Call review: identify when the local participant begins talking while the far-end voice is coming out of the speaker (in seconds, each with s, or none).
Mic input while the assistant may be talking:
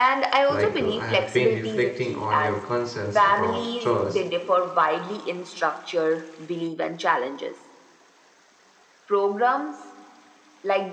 0.5 s